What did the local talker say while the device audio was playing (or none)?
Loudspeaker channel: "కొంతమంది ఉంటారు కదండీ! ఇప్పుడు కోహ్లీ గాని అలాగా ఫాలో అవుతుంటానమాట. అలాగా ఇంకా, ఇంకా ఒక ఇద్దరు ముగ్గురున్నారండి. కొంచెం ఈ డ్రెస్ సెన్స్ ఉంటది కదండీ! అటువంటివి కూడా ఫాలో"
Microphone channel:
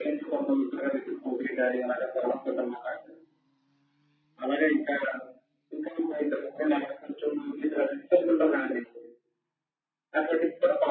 none